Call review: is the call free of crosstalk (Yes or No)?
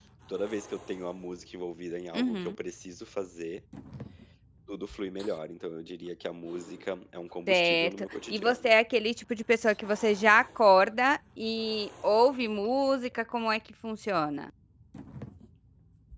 No